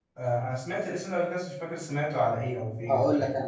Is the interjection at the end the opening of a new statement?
Yes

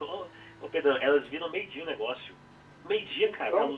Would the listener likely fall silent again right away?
Yes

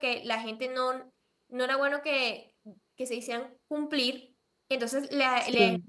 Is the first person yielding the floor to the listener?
No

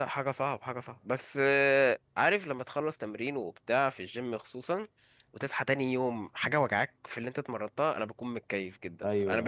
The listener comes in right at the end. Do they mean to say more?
Yes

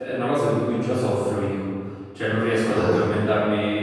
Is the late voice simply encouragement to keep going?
Yes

